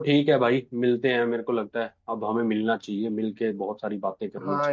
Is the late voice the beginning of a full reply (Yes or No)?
Yes